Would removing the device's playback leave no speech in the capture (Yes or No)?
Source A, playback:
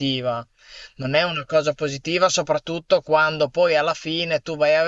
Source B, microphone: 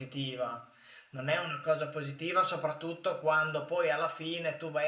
Yes